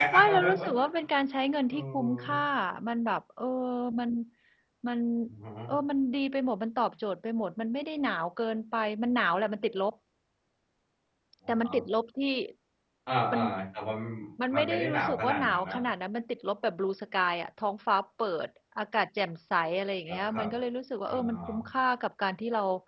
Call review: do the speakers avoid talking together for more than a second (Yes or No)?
No